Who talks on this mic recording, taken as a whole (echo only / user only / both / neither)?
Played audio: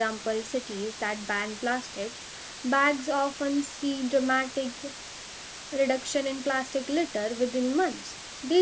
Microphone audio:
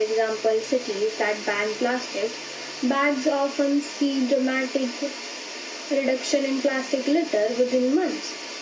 echo only